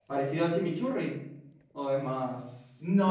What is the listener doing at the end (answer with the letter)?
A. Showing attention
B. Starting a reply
B